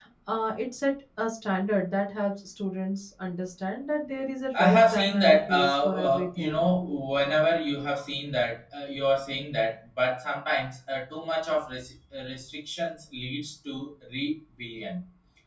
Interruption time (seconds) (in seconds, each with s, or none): 4.5 s